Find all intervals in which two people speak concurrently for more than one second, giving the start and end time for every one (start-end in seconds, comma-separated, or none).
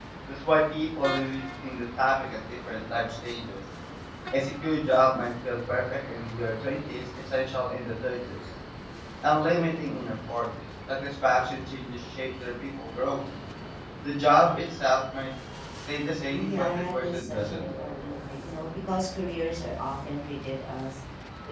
16.3-17.6